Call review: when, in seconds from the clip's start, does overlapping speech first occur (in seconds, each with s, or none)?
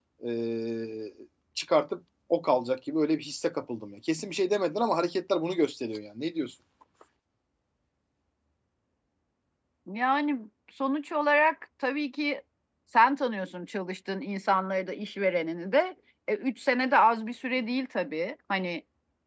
none